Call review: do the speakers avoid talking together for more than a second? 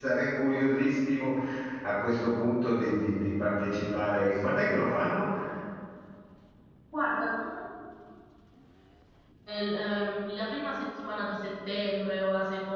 Yes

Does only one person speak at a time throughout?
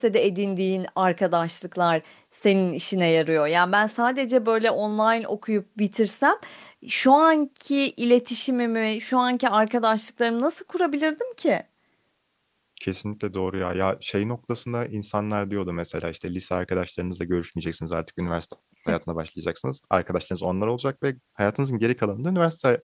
Yes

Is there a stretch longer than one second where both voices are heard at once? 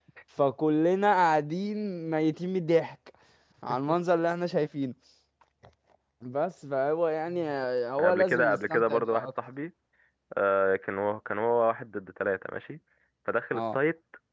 Yes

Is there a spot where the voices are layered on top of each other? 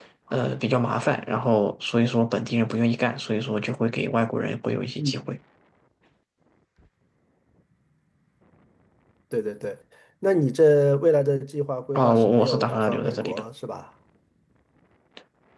Yes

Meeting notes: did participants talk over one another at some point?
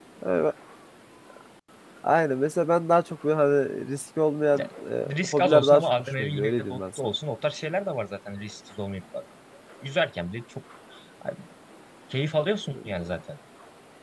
Yes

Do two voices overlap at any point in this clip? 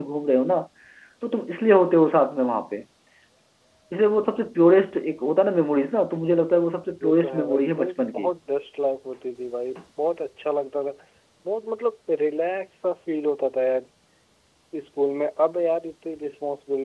Yes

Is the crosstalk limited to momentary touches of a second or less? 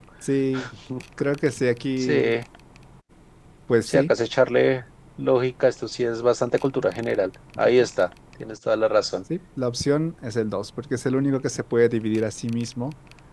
Yes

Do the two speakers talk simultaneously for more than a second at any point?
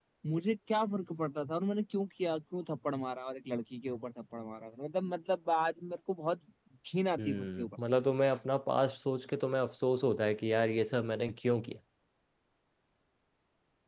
No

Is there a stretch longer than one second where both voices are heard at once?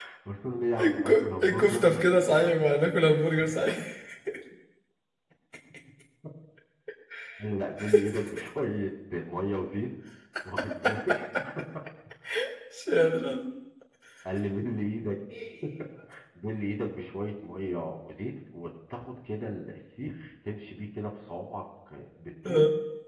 Yes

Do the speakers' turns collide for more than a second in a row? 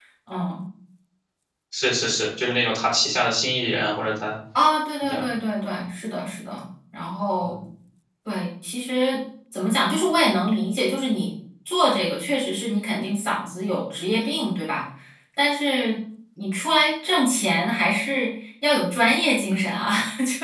No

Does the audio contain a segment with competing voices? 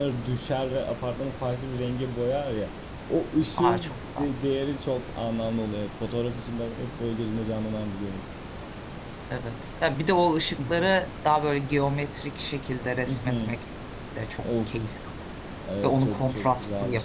Yes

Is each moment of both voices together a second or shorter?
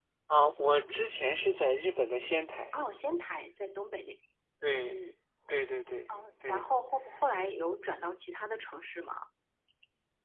Yes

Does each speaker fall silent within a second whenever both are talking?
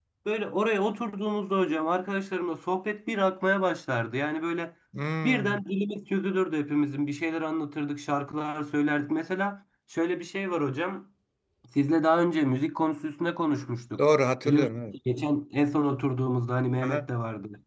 Yes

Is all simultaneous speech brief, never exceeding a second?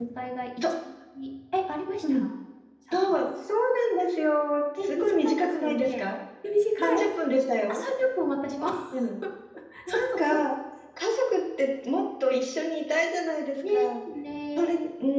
No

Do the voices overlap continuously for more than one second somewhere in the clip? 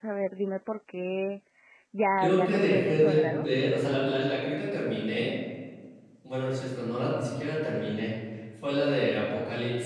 Yes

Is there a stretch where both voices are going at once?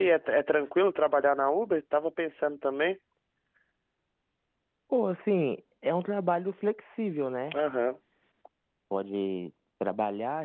No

